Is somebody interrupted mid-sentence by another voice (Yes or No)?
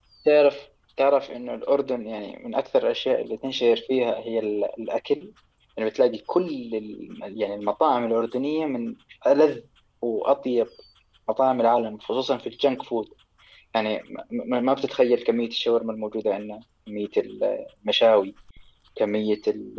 No